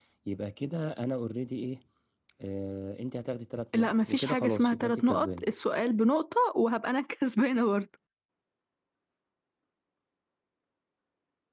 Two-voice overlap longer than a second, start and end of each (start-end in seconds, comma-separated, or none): 3.7-5.5